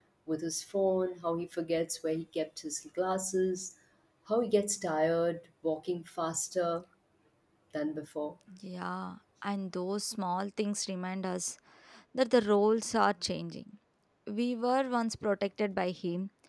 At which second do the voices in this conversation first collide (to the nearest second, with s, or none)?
none